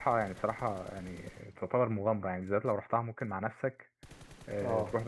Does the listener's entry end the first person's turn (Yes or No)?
No